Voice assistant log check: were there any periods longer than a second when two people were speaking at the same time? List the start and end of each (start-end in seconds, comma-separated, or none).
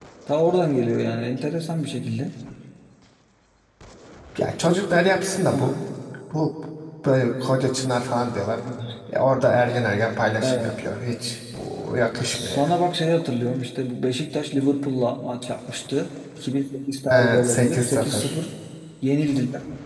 17.1-18.4